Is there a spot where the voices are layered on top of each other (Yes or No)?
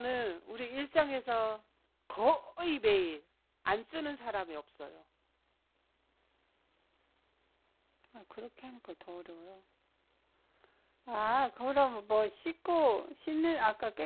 No